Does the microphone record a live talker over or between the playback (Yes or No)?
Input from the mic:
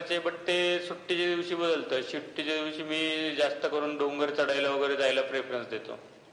No